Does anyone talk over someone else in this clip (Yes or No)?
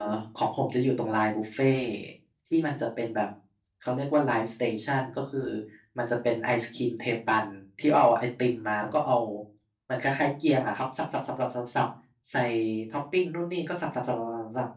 No